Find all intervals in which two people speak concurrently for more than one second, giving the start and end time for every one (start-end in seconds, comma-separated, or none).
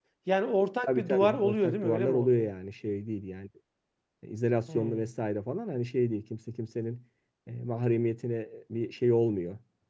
0.9-2.5